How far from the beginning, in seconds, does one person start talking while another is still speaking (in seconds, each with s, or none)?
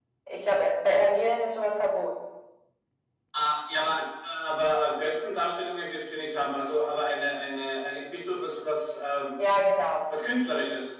none